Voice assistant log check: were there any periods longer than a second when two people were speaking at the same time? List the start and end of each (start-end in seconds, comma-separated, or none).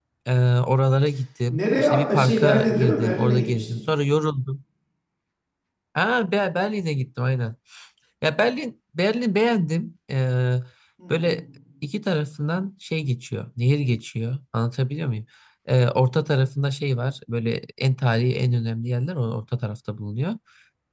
1.5-3.7